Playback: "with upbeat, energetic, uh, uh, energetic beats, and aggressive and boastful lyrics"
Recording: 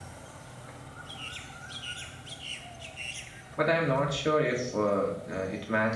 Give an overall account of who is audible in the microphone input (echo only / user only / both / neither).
user only